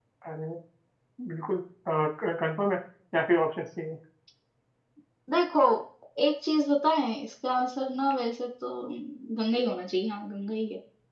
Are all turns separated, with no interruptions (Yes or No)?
Yes